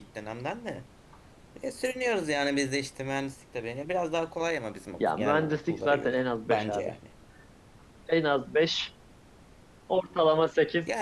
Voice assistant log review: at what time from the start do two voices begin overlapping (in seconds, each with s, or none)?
5.0 s